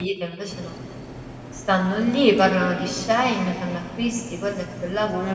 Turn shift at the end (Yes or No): Yes